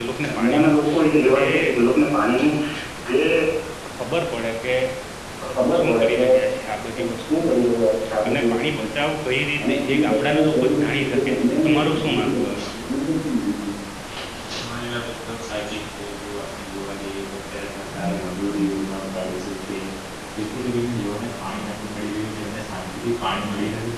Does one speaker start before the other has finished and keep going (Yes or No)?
Yes